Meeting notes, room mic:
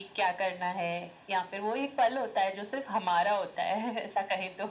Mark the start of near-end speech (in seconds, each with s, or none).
none